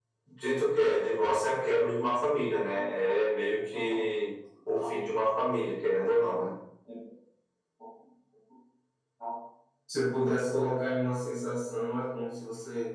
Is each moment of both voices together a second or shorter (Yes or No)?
Yes